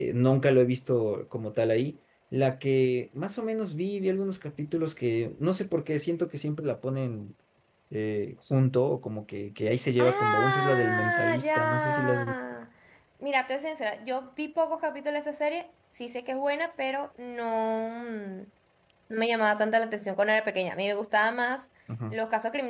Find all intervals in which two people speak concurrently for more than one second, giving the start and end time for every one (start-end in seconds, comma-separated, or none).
10.0-12.3